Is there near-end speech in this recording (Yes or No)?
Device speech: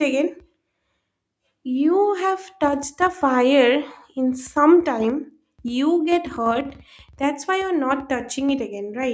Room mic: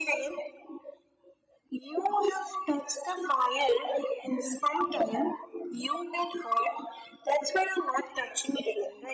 No